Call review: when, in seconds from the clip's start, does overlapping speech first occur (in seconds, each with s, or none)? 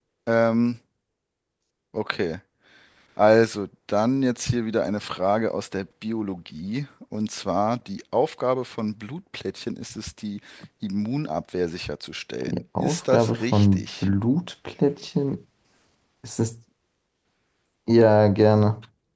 12.4 s